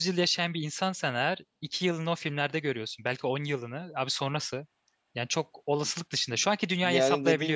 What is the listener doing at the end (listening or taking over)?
taking over